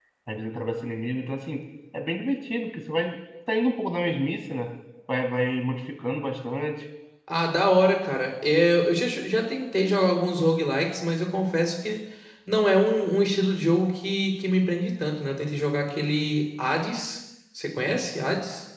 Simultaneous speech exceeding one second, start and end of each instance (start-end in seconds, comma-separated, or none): none